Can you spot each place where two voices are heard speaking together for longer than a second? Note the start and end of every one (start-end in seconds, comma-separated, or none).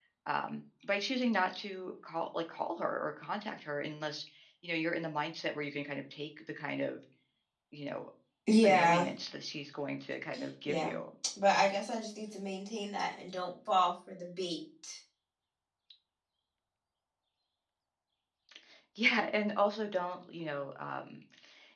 none